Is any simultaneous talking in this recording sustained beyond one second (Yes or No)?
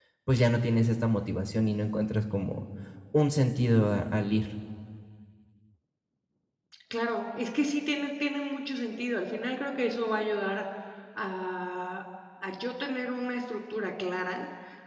No